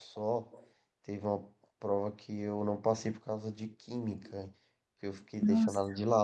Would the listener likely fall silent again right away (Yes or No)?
Yes